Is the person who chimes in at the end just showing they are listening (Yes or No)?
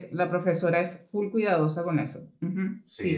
No